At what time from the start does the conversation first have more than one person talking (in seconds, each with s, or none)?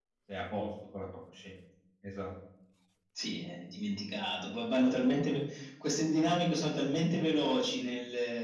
none